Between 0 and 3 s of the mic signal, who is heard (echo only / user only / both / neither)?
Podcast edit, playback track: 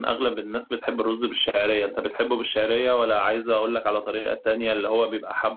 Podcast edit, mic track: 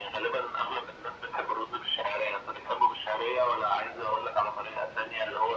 echo only